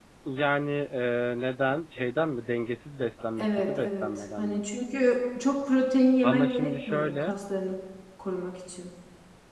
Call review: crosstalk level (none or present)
present